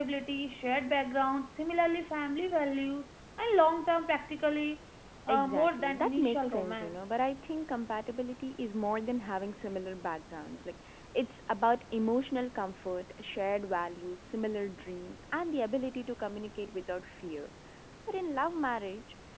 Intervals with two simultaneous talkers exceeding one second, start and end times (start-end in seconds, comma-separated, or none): 5.3-7.0